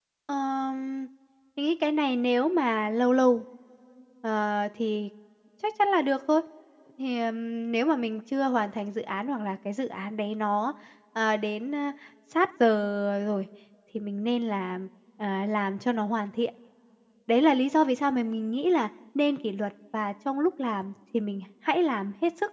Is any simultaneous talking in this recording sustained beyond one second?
No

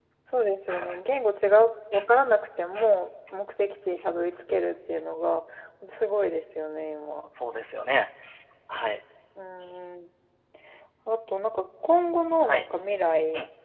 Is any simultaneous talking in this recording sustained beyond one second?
No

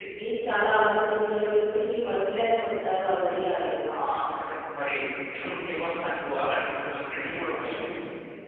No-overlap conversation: Yes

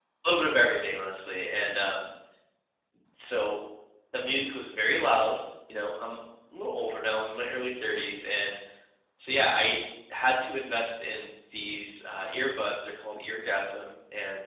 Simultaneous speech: No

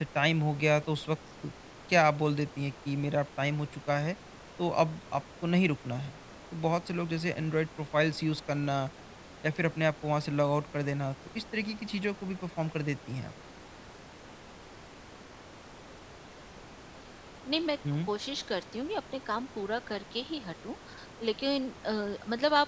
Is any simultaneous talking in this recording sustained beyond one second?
No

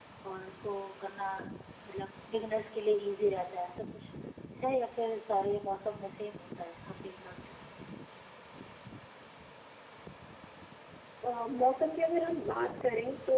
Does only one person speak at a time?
Yes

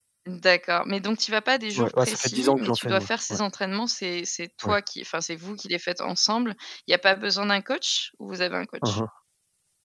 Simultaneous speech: Yes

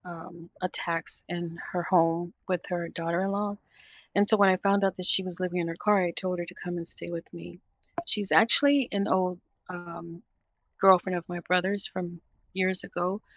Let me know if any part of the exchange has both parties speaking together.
No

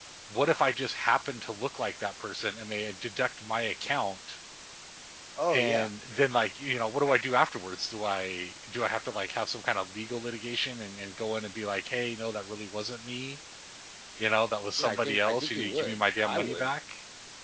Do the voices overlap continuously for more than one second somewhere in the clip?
Yes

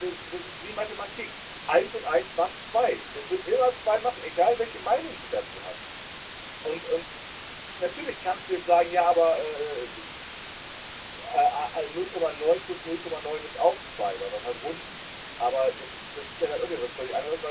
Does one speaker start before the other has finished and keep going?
No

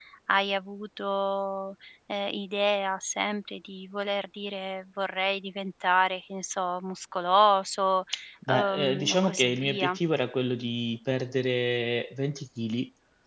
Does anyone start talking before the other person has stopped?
Yes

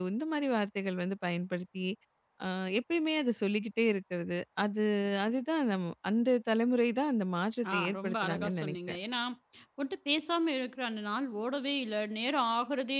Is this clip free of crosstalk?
No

